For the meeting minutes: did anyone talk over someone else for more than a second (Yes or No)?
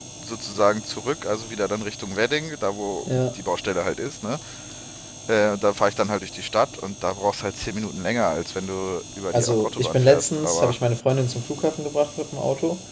Yes